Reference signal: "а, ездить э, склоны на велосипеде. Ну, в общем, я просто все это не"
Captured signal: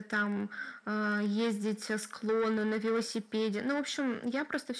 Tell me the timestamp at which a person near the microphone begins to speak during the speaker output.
none

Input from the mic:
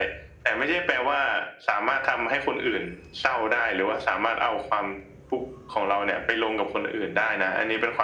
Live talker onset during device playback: none

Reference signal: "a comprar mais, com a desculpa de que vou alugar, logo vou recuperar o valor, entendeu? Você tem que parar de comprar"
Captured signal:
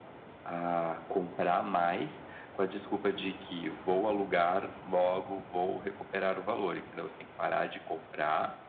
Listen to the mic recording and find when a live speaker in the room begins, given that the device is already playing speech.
none

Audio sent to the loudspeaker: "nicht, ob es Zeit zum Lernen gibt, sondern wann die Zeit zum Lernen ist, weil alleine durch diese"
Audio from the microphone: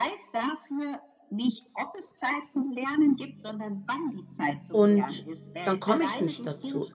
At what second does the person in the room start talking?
5 s

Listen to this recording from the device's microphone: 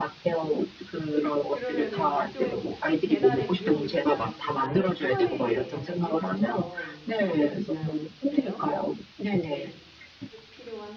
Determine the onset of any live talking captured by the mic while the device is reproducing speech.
2 s

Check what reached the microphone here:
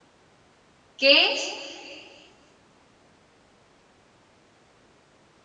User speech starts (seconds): 1 s

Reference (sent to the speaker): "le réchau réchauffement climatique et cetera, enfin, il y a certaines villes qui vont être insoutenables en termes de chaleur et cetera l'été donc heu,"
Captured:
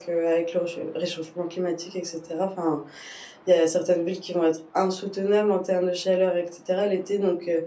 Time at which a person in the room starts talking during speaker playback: none

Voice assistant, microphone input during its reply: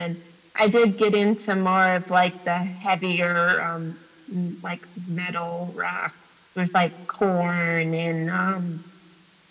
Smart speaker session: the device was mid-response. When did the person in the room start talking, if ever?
none

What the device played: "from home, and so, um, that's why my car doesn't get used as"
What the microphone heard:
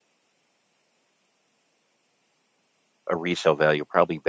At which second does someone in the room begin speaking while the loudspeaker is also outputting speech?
3 s

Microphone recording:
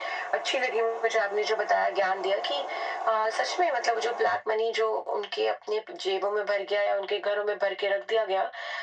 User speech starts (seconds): none

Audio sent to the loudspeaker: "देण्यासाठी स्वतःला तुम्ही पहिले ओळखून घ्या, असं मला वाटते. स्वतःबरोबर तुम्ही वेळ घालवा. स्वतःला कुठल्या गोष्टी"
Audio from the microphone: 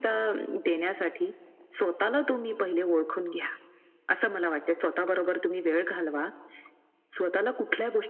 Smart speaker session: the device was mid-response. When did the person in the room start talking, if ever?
none

